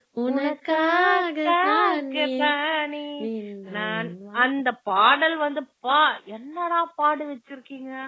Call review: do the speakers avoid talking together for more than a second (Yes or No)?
No